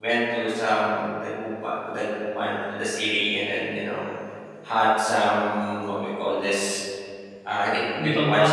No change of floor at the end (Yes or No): Yes